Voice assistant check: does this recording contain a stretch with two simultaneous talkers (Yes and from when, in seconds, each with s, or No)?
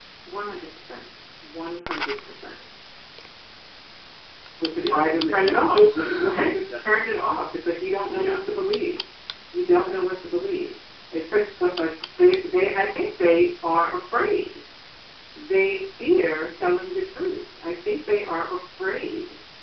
Yes, from 4.8 s